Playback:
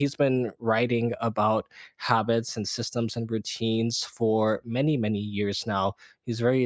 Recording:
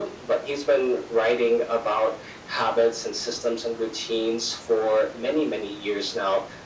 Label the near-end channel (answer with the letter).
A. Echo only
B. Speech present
A